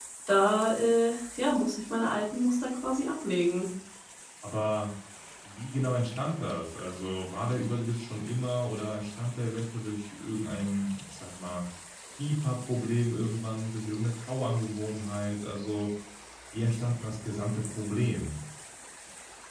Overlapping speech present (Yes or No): No